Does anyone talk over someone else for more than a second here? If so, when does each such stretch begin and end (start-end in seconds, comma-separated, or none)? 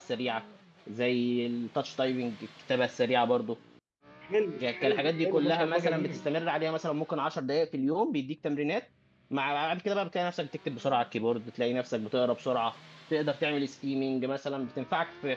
4.6-6.2